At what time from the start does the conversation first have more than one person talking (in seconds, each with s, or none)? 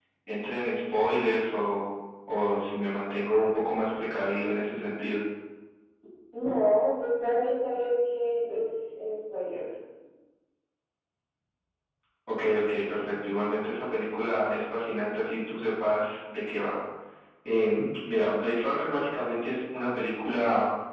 none